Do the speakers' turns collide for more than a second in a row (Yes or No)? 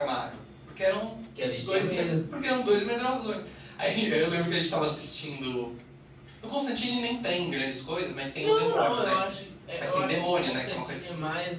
Yes